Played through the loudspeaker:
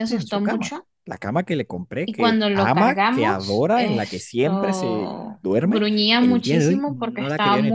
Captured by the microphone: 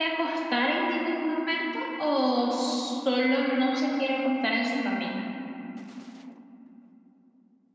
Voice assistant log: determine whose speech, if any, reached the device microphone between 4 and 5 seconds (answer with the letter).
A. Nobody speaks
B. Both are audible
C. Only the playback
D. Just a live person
D